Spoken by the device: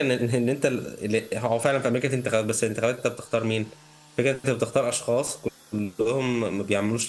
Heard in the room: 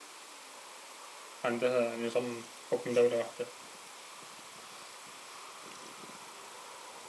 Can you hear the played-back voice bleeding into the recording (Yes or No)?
No